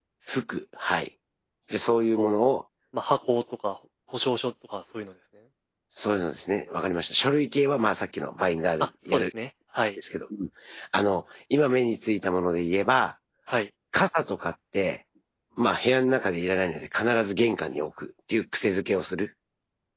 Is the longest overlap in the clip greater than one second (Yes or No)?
No